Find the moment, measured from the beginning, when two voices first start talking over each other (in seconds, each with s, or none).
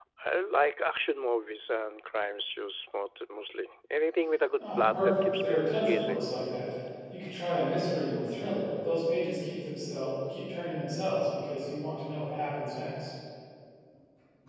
4.6 s